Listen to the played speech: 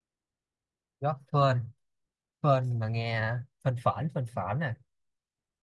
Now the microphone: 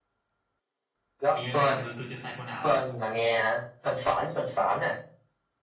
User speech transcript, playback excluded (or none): hình như nãy giờ tôi tôi chưa sai câu nào à